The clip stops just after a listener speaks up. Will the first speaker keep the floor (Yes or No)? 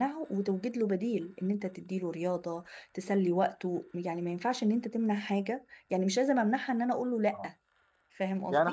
No